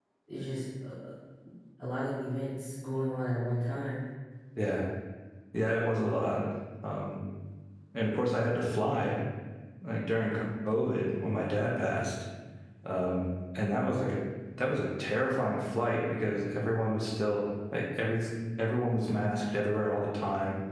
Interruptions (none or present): none